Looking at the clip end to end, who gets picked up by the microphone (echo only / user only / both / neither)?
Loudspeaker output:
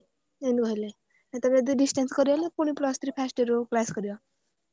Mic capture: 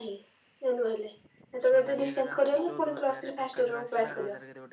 both